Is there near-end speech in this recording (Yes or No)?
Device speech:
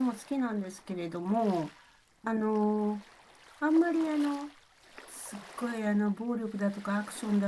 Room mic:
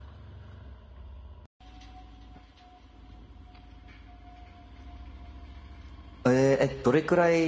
Yes